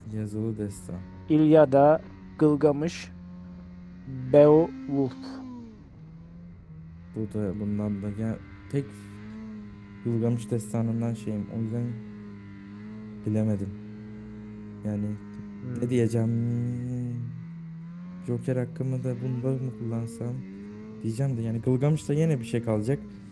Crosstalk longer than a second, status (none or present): none